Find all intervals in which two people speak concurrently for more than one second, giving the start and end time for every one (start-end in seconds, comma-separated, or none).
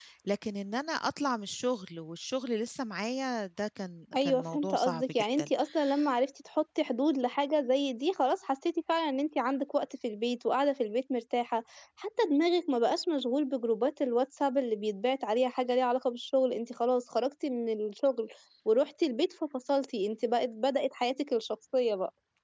4.2-5.5